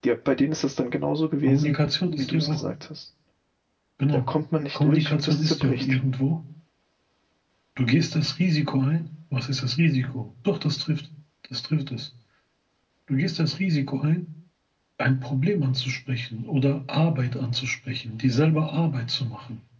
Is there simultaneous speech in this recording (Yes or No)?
Yes